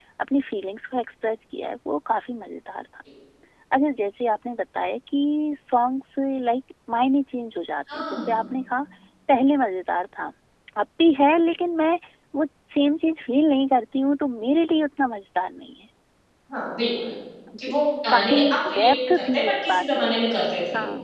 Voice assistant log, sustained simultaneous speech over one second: present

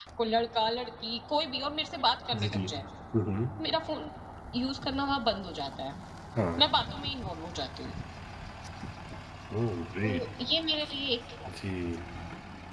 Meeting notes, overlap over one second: none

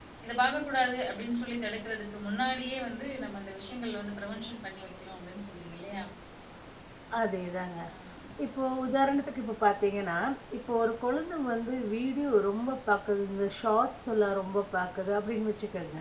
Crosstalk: none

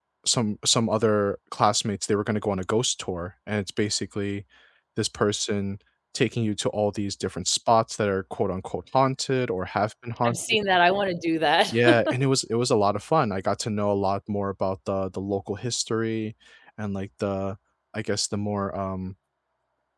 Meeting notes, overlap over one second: none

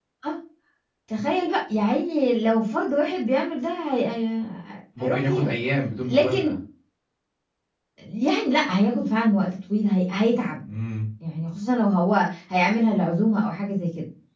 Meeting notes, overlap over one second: none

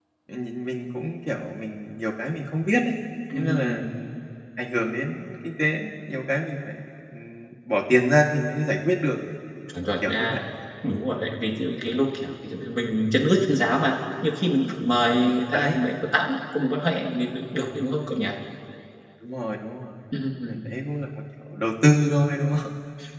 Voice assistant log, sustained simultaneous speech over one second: none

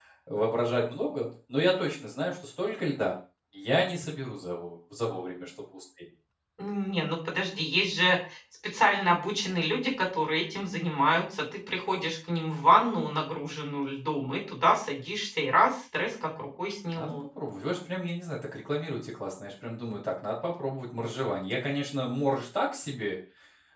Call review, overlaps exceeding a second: none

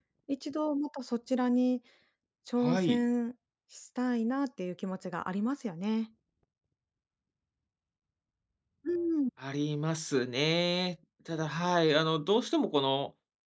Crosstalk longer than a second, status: none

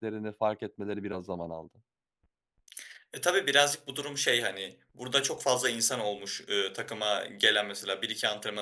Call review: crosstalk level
none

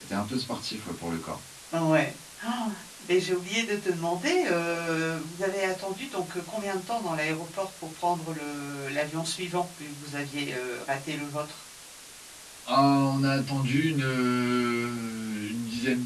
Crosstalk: none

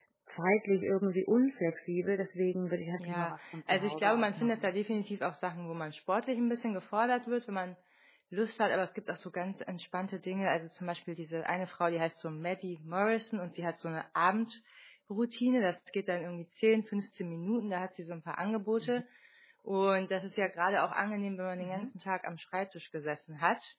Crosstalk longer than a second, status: present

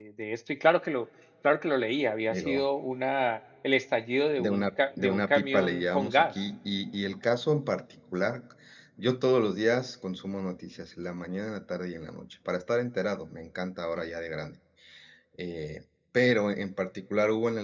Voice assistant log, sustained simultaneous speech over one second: present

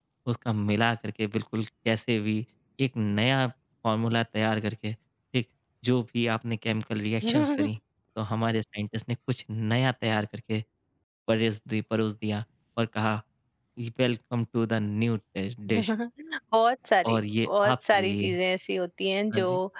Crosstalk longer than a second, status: present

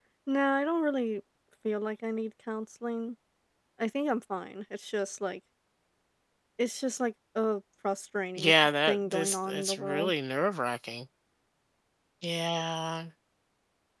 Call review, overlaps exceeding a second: present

